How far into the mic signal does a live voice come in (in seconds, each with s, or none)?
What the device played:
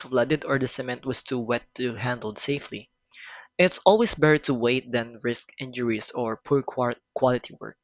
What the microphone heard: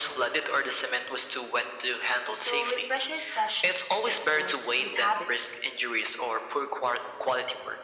2.3 s